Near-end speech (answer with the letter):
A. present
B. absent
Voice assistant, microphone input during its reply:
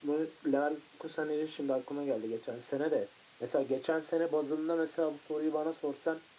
B